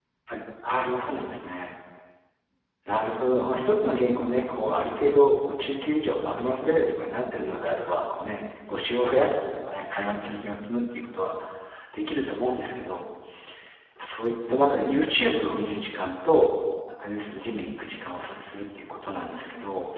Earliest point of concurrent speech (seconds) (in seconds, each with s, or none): none